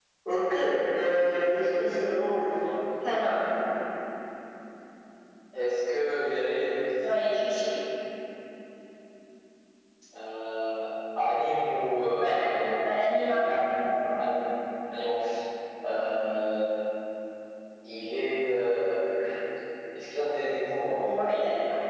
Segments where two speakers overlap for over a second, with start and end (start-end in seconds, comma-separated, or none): 12.2-13.6